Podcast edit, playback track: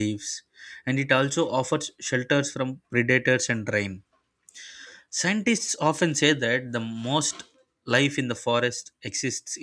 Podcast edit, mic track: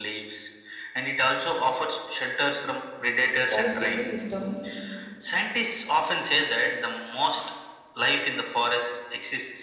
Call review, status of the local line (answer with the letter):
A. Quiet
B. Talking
B